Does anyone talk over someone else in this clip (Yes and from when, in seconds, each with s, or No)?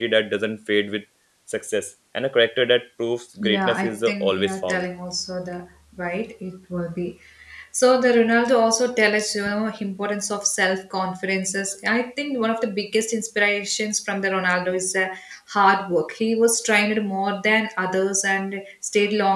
Yes, from 3.4 s